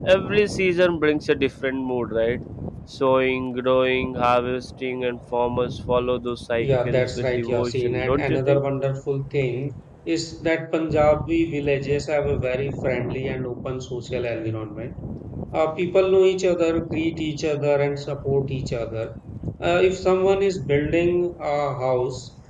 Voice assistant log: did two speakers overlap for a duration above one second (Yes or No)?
Yes